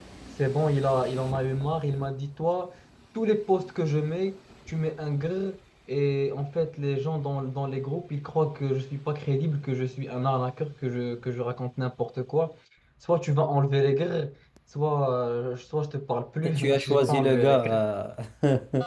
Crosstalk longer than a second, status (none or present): present